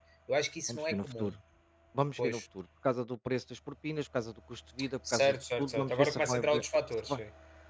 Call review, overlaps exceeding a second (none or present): present